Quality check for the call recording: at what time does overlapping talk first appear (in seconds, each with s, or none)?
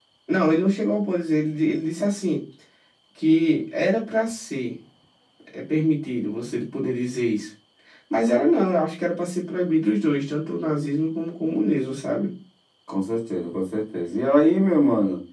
none